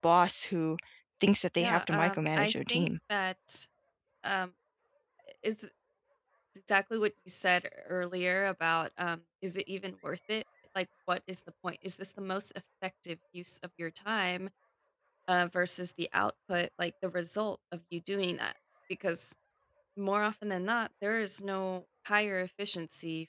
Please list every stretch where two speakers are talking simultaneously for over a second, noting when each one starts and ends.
1.6-2.9

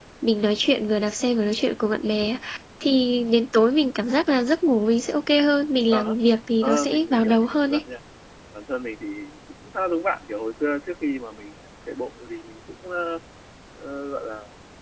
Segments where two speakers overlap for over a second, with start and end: 6.6-7.8

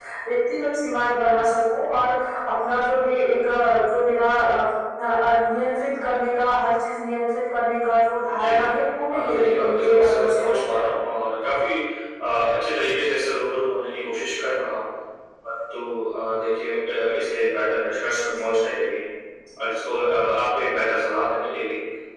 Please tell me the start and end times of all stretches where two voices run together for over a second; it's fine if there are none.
9.1-10.9

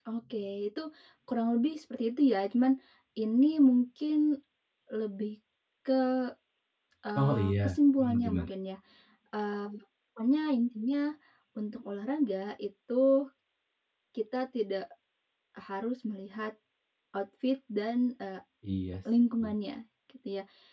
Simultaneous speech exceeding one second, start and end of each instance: 7.2-8.5

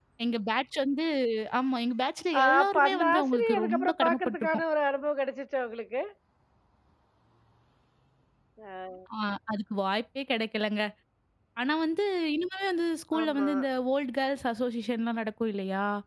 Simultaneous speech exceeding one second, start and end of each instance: 2.4-4.6

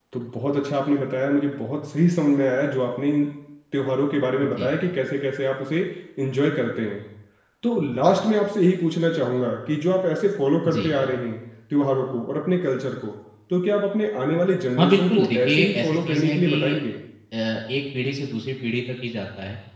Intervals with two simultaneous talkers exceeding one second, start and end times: 14.8-16.7

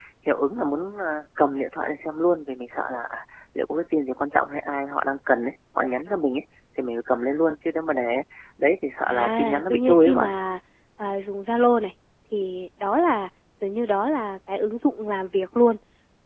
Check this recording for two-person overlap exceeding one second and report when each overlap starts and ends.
9.1-10.3

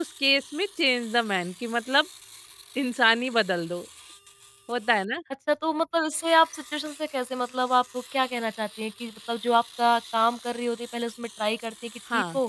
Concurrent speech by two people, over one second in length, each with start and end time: none

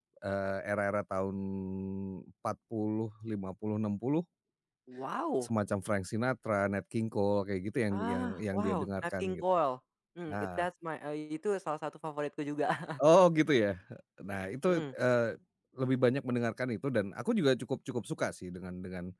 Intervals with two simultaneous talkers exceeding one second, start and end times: 7.9-9.4

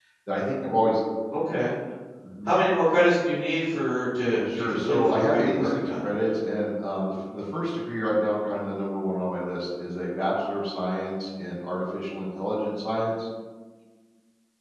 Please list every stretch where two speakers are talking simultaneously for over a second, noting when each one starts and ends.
4.5-6.1

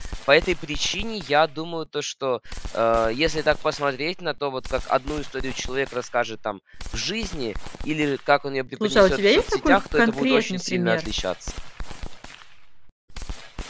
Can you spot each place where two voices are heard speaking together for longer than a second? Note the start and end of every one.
8.8-11.1

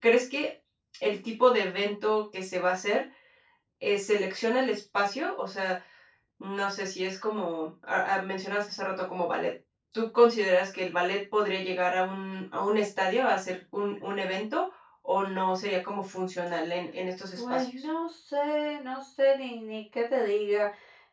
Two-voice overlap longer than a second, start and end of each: none

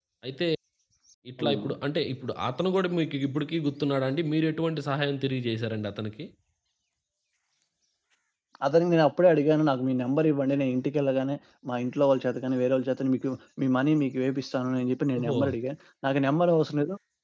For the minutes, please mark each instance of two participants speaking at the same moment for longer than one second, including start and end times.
none

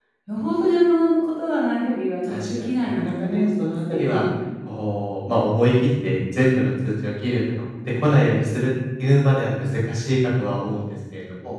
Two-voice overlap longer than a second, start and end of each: 2.3-4.2

